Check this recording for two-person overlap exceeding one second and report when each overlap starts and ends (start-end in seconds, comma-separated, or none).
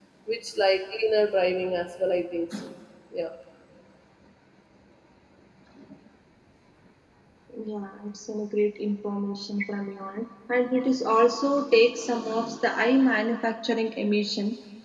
none